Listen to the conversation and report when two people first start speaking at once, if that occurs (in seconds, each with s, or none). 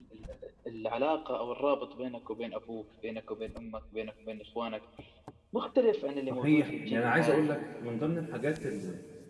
6.3 s